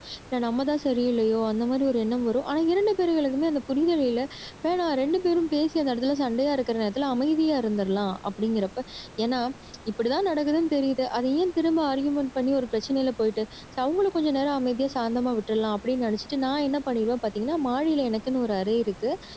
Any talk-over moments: No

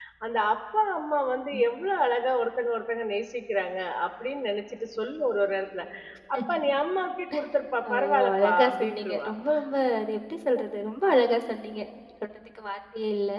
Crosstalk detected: Yes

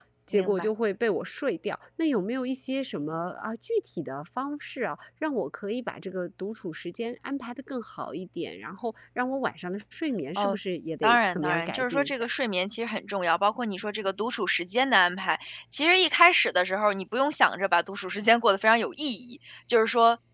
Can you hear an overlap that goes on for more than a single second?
Yes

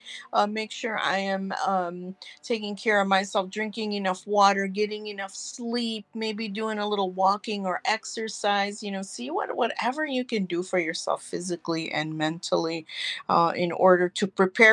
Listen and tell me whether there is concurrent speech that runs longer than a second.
No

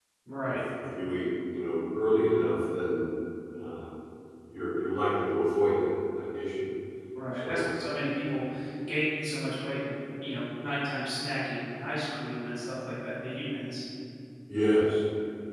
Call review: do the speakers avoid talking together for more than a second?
Yes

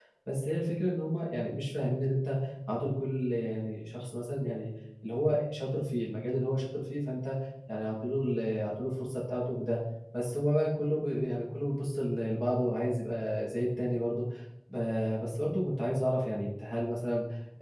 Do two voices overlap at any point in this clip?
No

